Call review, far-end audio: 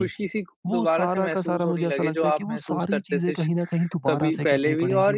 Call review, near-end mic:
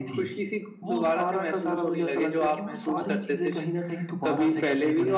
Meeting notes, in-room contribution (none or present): none